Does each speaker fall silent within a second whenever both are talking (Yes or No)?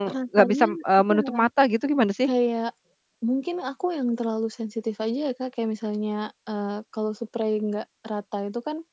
Yes